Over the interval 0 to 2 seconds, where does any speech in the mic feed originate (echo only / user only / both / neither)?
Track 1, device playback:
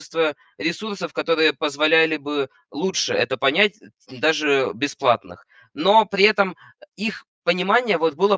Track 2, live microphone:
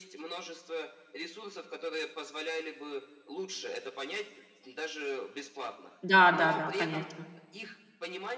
echo only